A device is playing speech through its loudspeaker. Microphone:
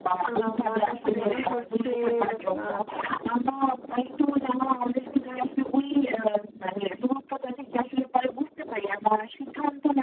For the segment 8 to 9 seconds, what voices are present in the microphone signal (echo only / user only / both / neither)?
echo only